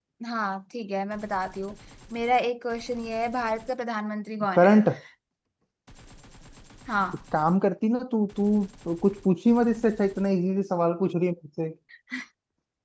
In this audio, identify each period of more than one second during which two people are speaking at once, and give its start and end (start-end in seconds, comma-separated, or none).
none